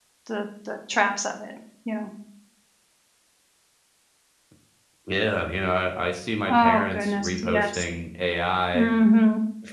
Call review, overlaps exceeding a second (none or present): present